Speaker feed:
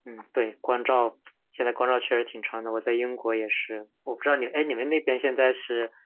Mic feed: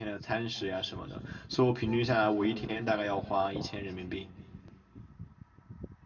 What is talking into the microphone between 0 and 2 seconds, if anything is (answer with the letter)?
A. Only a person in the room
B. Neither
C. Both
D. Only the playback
A